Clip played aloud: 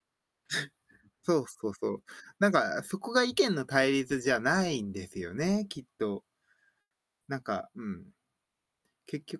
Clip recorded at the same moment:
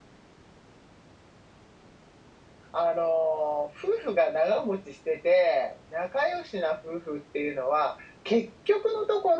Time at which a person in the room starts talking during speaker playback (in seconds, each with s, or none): 2.7 s